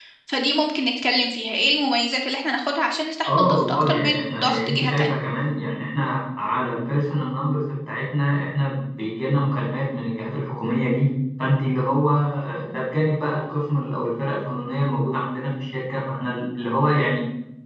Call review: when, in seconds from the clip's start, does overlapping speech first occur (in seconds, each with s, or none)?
3.2 s